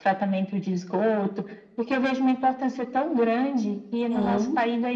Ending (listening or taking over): listening